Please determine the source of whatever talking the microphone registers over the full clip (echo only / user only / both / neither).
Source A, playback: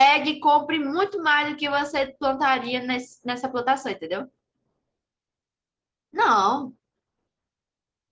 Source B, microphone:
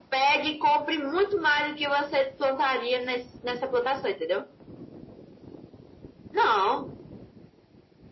echo only